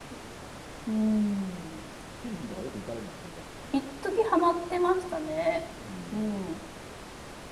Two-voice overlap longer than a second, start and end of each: none

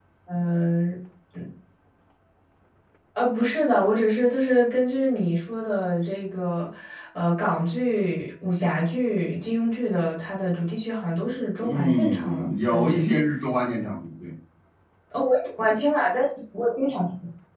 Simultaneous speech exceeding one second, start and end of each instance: 11.6-13.0

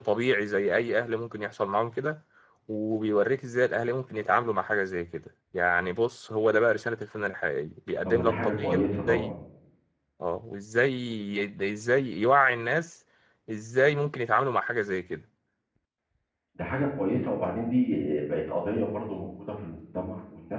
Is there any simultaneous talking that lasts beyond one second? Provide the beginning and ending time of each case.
8.0-9.3

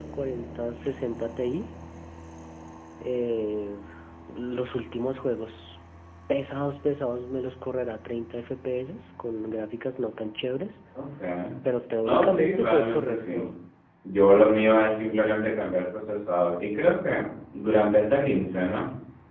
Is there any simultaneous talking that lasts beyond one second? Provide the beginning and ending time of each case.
12.0-13.5

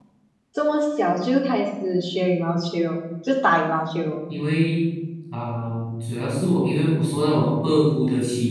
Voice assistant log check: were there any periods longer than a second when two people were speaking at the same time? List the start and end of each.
none

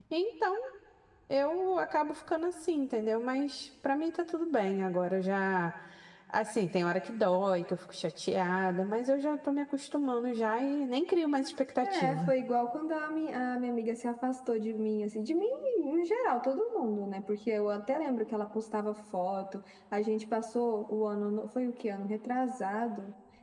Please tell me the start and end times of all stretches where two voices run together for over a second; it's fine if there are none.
none

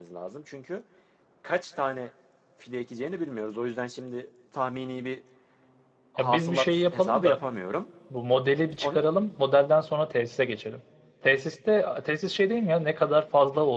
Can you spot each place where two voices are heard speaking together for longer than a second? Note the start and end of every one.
6.2-7.4

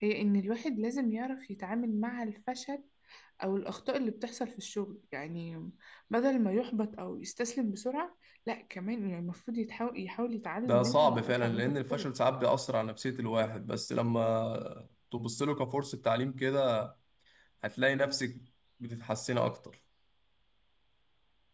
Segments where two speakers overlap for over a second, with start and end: 10.7-12.1

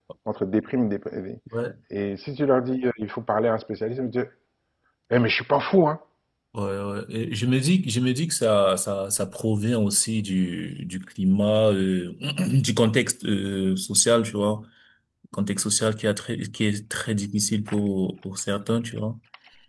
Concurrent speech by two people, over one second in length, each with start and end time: none

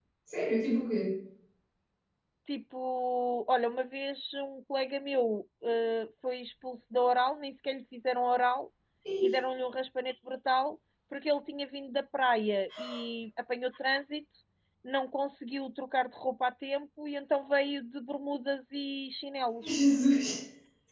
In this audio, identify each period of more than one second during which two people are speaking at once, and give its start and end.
none

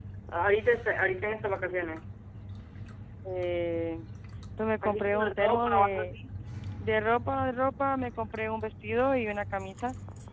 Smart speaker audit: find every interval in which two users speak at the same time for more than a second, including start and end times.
4.8-6.1

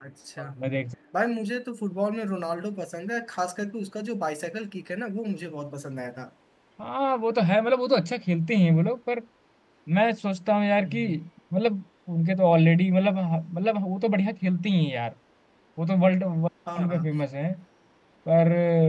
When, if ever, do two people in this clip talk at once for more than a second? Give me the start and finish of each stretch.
none

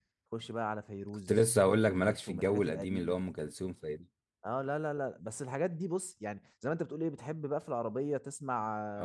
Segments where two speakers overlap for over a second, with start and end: 1.9-3.3

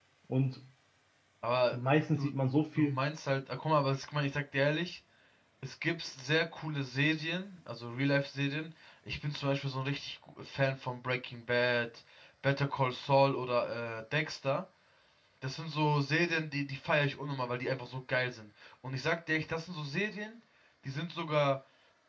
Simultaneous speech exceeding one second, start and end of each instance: none

